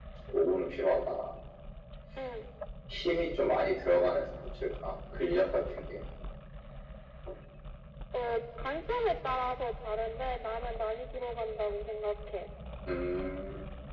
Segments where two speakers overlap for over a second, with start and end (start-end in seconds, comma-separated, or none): none